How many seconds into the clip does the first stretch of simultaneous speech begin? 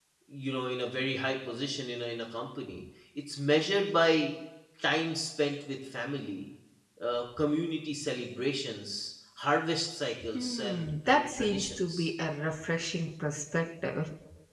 10.3 s

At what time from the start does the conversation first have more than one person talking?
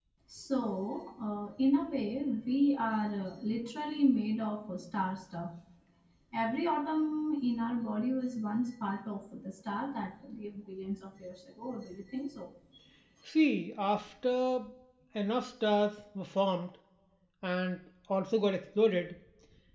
none

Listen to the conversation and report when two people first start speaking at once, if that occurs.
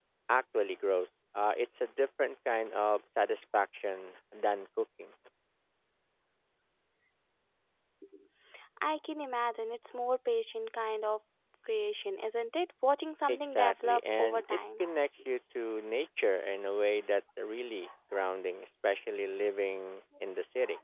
13.3 s

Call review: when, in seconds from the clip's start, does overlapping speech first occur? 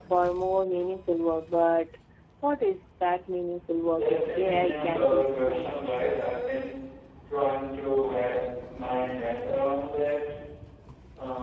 4.0 s

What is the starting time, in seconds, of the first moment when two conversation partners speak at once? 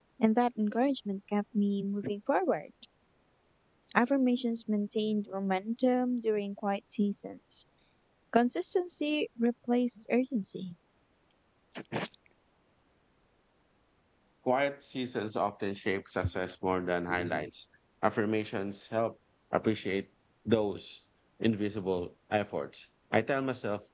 none

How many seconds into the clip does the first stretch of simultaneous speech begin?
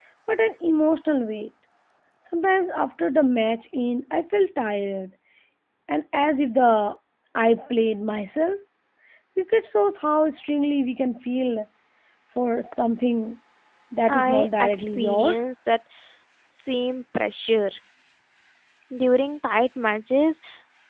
14.1 s

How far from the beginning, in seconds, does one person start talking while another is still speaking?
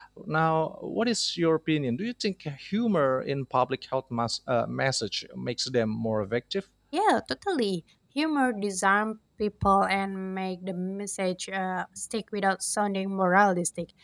none

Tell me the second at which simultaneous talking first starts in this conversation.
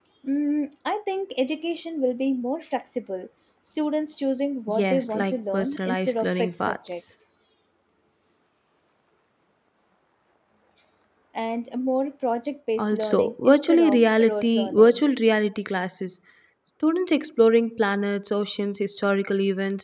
4.7 s

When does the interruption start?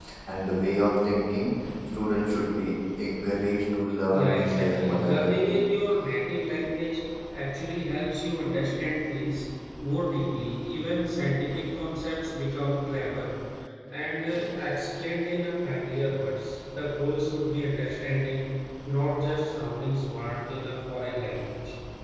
4.1 s

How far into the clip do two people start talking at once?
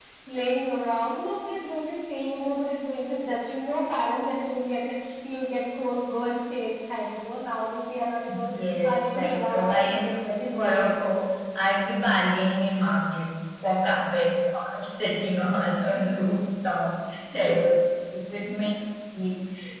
8.6 s

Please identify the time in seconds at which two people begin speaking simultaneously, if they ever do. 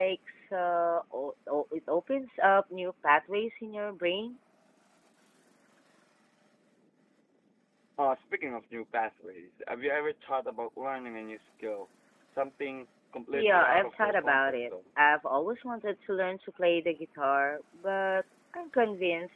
13.3 s

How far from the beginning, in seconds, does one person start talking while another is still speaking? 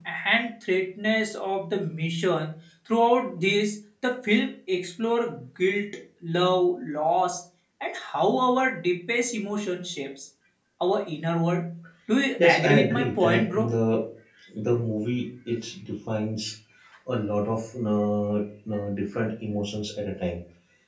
12.4 s

